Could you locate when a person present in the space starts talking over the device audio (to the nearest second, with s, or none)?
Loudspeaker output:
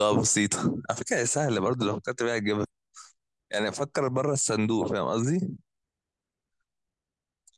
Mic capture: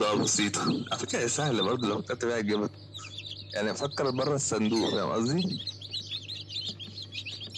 none